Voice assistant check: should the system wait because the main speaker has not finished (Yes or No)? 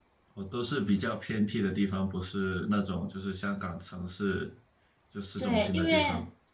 No